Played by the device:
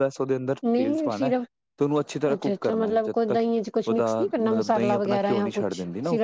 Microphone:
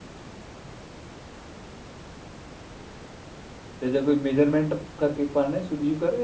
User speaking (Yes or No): Yes